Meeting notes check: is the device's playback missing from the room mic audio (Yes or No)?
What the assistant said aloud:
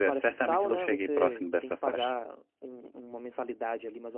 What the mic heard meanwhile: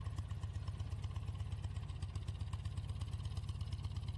Yes